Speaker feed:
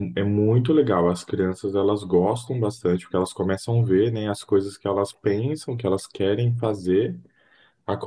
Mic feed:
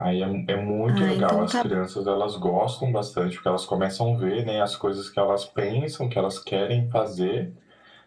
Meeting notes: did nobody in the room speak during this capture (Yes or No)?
No